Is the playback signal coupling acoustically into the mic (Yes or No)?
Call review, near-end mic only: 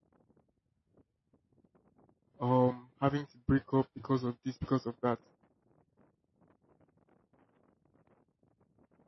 No